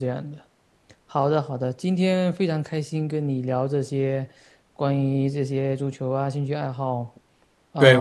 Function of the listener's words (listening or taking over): taking over